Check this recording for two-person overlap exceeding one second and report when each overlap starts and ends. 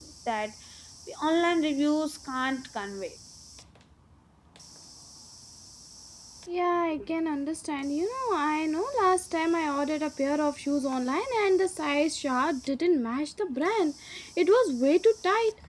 none

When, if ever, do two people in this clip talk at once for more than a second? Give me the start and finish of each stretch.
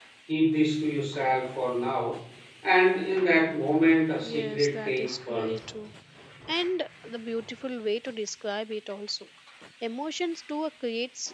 4.2-5.5

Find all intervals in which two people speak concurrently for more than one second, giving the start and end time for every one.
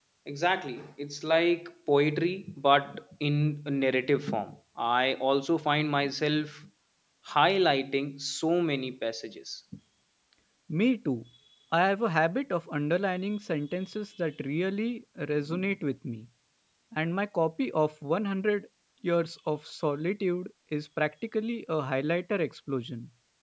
none

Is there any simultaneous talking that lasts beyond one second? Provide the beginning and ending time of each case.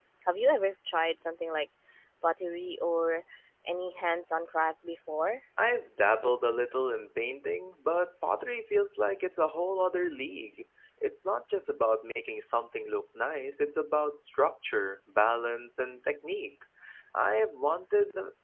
none

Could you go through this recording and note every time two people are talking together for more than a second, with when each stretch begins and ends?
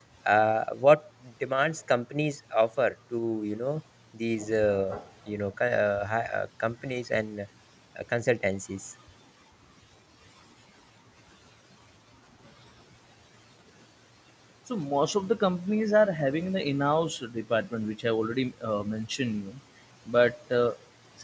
none

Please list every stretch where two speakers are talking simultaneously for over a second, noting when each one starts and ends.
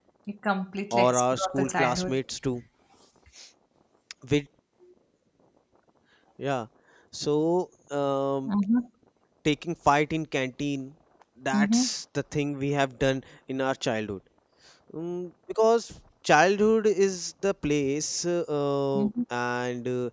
0.9-2.2

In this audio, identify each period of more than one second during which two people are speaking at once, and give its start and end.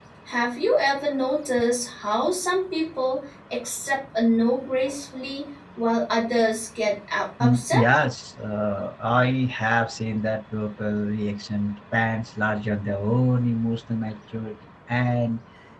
none

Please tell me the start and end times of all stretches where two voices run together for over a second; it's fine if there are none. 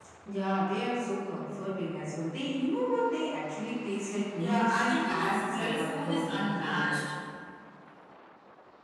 4.4-6.9

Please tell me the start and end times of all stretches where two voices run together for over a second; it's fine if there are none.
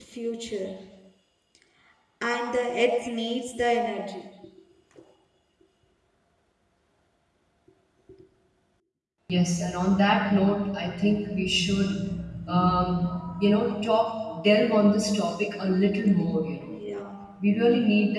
none

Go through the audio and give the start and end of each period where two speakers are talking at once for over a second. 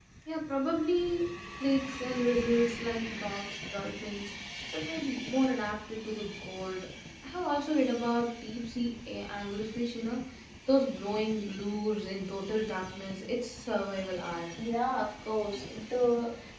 none

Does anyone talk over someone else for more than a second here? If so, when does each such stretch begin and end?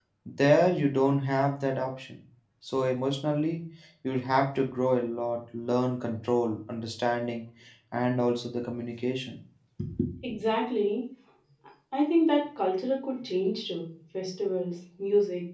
none

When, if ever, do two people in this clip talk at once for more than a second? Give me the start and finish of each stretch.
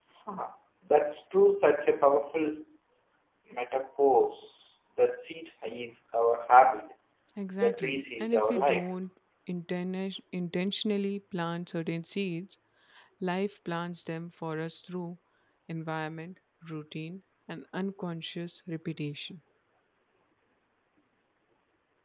7.6-8.8

